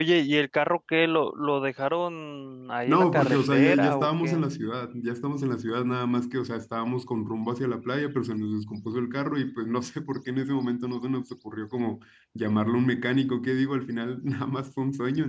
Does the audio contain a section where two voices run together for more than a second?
Yes, from 2.9 s

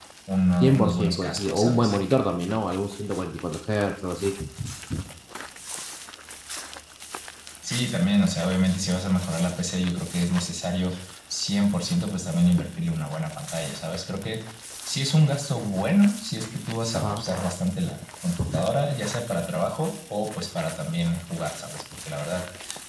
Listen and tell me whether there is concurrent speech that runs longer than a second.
Yes, from 0.6 s

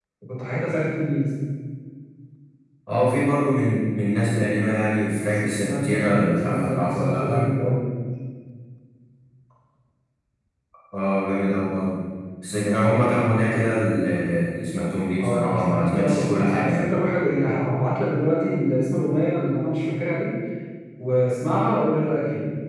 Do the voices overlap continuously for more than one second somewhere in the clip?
Yes, from 5.3 s

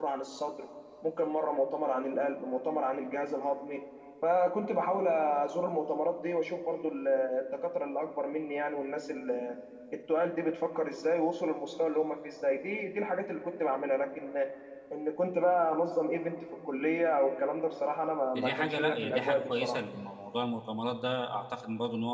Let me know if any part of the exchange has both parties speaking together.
Yes, from 18.3 s

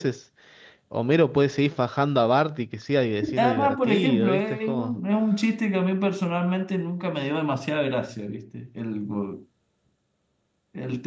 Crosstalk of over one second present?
Yes, from 3.2 s

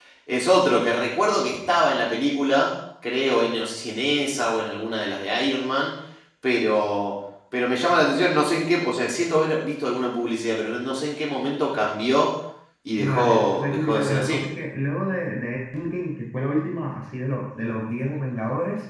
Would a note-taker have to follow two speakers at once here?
Yes, from 13.0 s

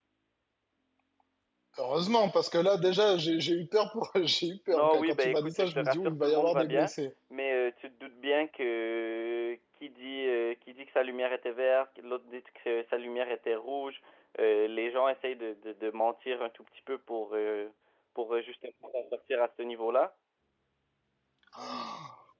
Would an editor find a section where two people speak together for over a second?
Yes, from 4.7 s

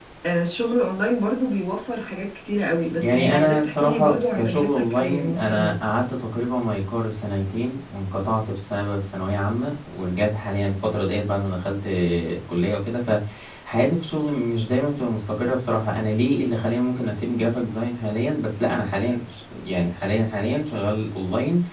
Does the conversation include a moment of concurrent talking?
Yes, from 3.0 s

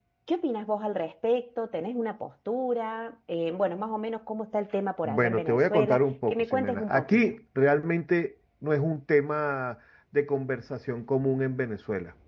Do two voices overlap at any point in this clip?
Yes, from 5.0 s

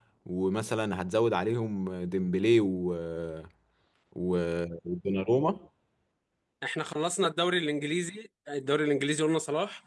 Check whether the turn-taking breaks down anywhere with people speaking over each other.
No

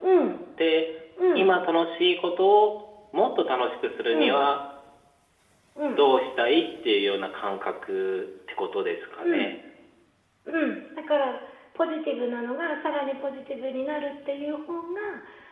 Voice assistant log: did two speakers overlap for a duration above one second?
No

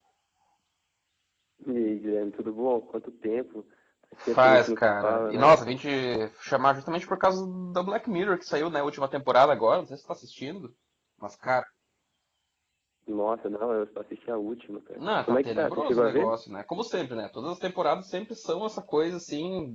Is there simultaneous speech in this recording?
Yes, from 4.2 s

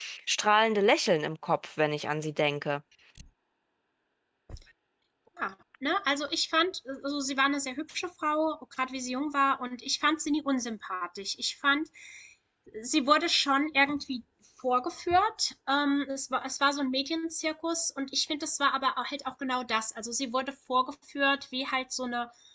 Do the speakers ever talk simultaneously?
No

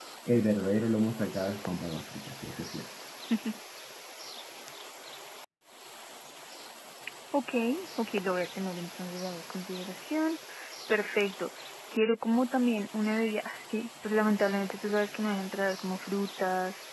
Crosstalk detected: No

